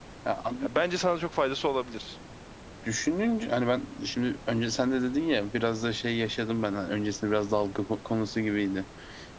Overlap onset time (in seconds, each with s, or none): none